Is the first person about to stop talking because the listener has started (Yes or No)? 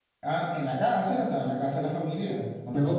Yes